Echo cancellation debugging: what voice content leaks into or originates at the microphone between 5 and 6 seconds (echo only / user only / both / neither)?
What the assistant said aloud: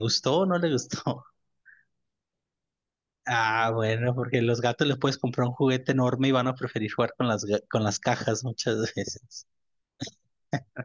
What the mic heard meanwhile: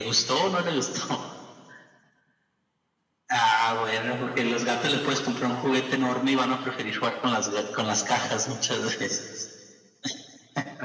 echo only